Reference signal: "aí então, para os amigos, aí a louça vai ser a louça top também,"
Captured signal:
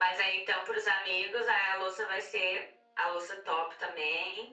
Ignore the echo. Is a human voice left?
No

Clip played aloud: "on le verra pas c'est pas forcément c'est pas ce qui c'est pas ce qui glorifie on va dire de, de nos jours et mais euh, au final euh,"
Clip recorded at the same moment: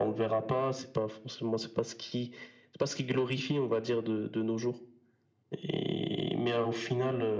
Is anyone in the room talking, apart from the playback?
No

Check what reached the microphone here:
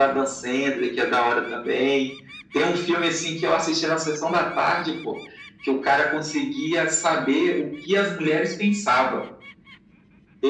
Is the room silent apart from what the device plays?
Yes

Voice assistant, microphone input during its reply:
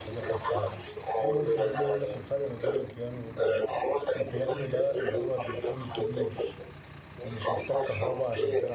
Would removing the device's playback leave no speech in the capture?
No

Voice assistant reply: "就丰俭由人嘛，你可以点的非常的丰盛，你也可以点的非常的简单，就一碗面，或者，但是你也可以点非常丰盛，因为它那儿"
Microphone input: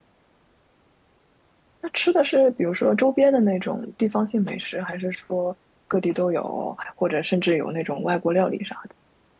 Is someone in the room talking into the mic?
Yes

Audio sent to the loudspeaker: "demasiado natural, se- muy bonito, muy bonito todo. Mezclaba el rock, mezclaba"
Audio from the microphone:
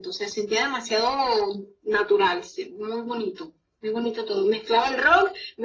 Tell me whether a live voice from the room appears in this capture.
No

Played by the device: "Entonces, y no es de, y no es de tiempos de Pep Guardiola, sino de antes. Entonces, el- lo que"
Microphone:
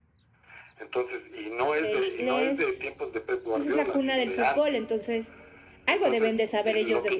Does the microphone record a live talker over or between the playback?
Yes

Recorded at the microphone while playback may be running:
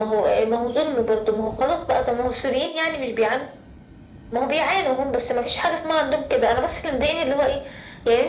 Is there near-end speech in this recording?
No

